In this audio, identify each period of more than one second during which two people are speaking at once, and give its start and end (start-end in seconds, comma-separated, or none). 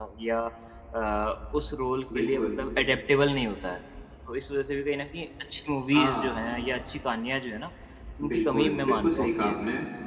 8.3-9.6